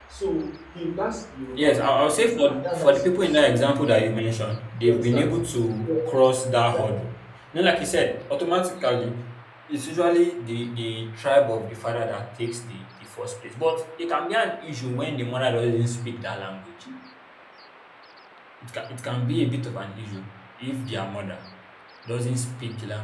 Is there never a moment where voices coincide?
No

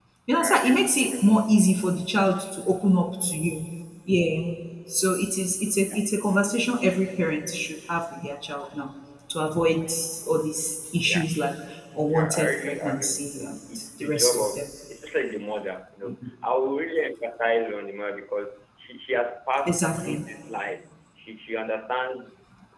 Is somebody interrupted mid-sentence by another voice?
Yes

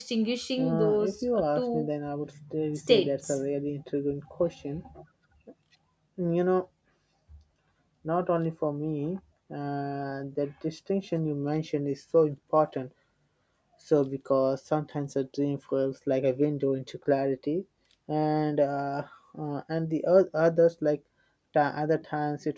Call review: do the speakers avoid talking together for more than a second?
No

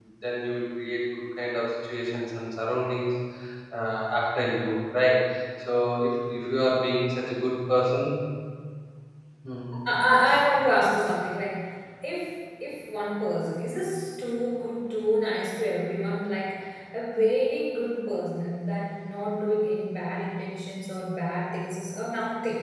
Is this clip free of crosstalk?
Yes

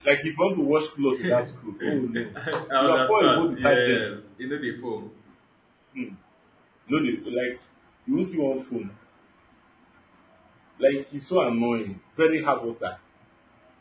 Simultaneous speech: Yes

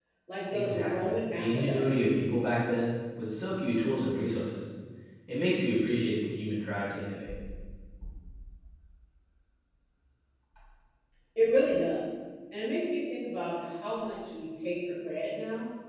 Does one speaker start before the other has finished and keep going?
Yes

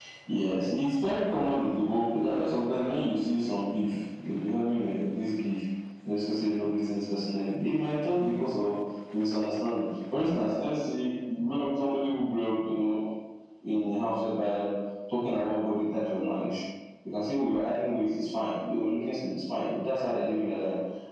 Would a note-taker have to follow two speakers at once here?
No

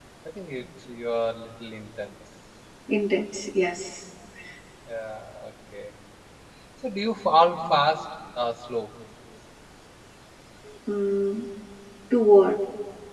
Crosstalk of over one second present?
No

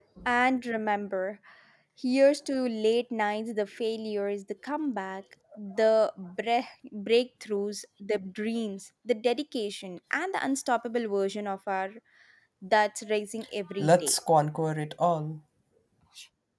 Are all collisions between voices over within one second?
Yes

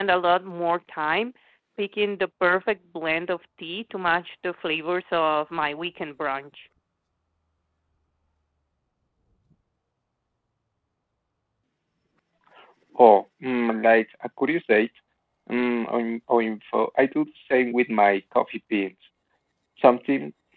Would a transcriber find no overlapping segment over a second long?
Yes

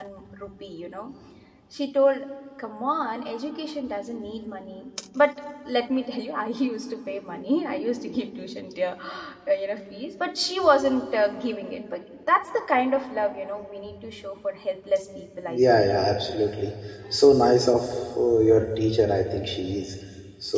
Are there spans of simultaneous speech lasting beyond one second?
No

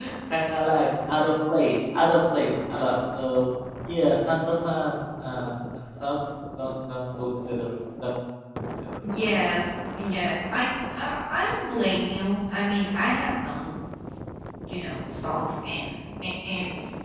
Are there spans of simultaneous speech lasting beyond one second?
No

